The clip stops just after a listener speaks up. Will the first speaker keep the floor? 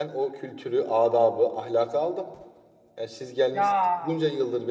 Yes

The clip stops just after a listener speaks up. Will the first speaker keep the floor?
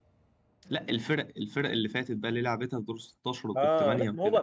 No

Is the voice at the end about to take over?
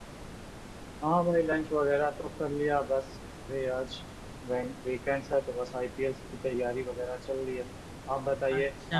Yes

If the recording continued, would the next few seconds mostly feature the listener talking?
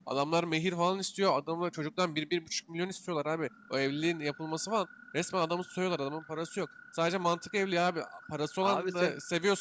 No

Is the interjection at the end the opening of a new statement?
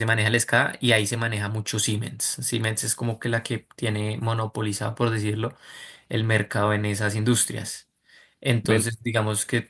No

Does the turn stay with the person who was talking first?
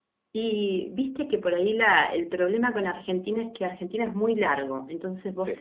Yes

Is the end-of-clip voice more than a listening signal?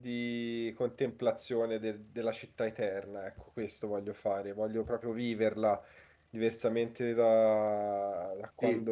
No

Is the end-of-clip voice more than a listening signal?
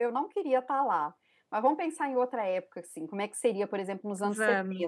No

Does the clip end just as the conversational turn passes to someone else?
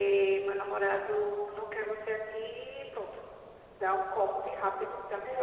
Yes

